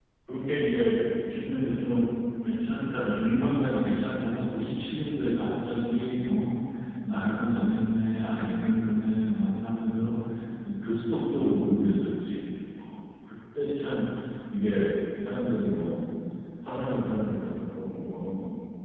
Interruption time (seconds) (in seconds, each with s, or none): none